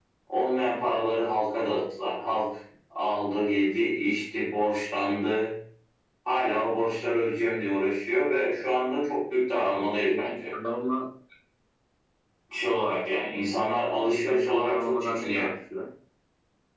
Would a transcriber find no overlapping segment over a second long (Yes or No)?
No